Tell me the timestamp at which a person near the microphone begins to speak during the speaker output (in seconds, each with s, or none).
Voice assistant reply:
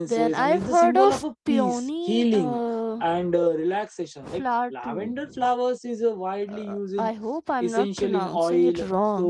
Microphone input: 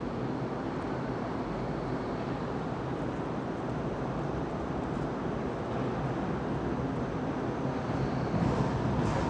none